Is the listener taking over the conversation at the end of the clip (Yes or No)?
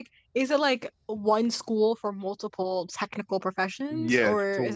Yes